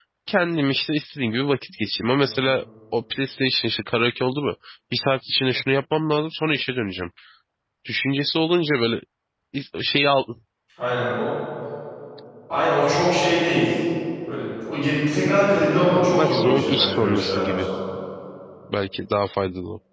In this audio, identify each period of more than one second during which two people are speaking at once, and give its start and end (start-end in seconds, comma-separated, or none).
15.9-17.7